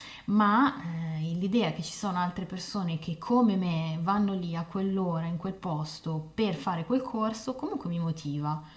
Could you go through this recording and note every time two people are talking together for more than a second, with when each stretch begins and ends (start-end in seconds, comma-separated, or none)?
none